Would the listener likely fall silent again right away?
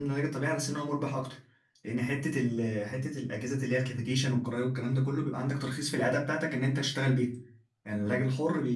Yes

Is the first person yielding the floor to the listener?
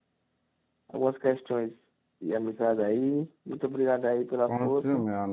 Yes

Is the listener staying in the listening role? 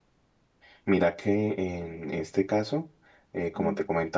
Yes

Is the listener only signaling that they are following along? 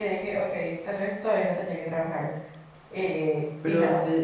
No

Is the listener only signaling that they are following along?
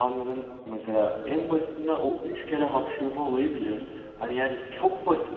Yes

